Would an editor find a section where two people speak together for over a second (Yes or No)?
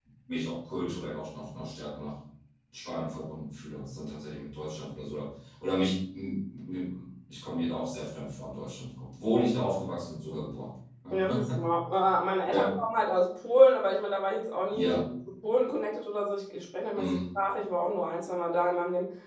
No